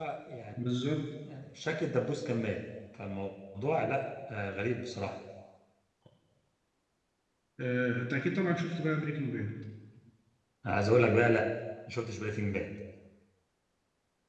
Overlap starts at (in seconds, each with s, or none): none